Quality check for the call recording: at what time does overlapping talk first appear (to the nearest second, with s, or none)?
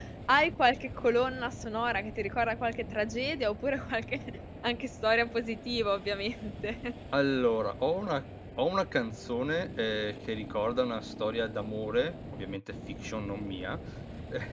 none